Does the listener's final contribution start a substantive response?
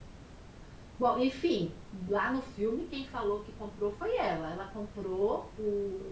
No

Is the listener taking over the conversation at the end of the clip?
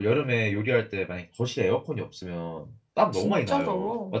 Yes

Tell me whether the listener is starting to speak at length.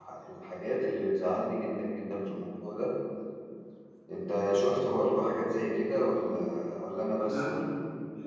Yes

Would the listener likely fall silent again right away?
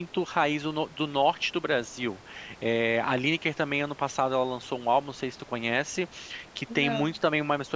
Yes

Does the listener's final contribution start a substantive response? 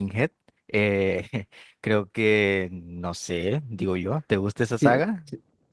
Yes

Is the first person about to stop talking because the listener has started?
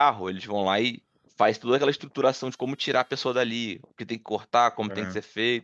No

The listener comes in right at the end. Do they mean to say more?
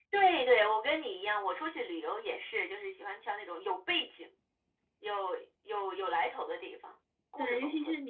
Yes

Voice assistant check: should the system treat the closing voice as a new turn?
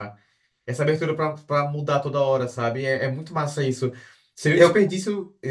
No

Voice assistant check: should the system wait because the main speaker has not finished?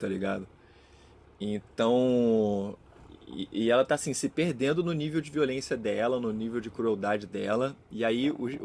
Yes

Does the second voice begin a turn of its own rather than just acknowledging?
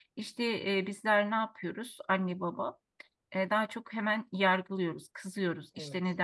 No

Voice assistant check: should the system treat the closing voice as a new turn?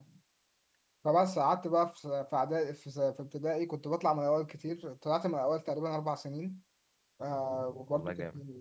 No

